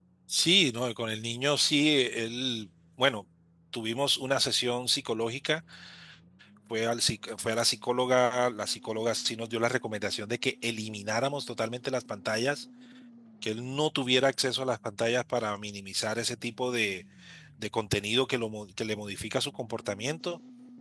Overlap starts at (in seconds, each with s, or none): none